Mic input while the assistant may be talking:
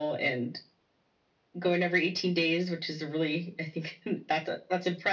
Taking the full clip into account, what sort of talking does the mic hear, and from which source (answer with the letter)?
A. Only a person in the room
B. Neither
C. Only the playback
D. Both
C